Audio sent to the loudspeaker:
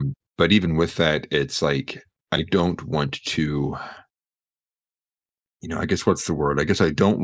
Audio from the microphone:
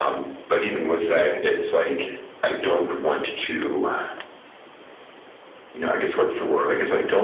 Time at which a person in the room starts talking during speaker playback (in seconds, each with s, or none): none